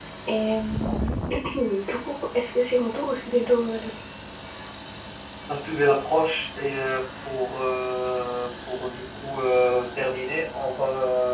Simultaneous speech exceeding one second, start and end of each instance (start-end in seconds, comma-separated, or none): none